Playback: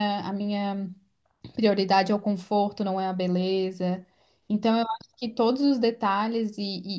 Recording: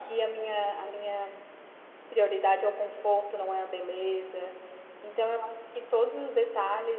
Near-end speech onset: none

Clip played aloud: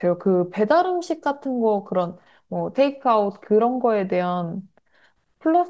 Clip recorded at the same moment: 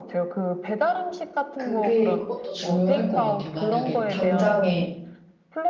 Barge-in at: 1.5 s

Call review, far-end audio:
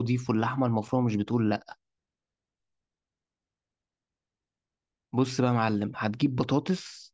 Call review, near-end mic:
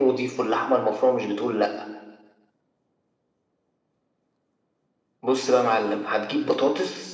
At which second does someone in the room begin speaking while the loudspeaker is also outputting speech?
none

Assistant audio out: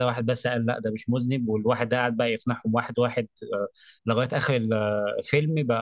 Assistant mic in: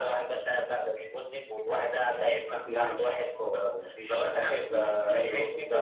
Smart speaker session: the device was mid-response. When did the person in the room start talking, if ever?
2.1 s

